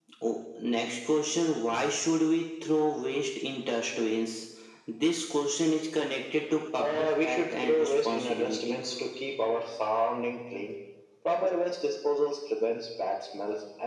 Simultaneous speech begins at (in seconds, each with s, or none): 6.8 s